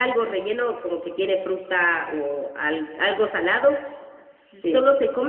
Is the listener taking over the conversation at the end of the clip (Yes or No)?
No